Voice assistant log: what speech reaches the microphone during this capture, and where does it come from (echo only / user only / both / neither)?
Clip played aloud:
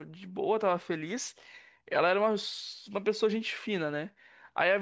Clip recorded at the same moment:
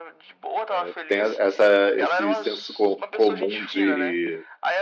both